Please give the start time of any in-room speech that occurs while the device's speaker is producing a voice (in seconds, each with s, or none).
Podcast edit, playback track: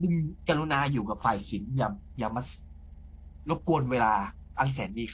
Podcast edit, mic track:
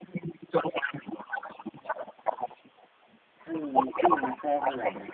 3.4 s